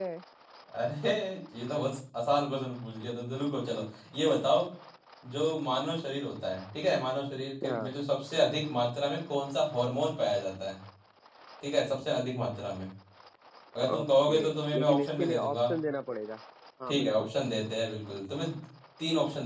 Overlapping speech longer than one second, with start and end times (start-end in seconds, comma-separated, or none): 13.9-15.6